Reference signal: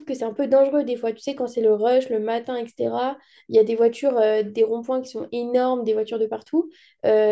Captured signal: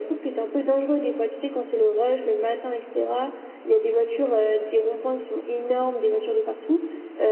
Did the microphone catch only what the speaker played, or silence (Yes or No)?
Yes